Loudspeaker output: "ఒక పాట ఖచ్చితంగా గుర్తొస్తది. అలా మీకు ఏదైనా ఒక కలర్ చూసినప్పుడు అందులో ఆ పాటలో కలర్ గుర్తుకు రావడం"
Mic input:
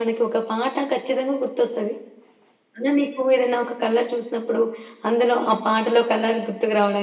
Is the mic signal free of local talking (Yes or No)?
Yes